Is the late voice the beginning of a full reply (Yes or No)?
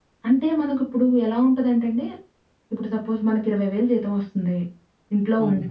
No